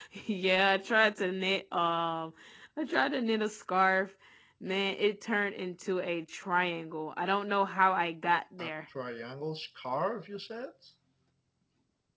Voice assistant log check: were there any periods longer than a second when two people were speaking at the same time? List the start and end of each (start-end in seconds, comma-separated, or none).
none